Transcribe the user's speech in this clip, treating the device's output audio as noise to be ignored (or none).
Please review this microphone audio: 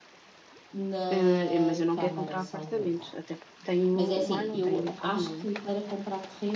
eh, mas eu não quero comprar apartamentos, até porque tenho o Milo, tenho o cão, não é?